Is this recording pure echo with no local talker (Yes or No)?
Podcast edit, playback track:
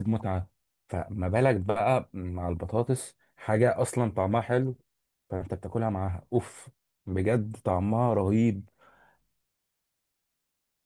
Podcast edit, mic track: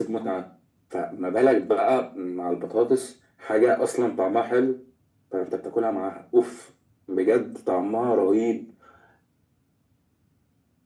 Yes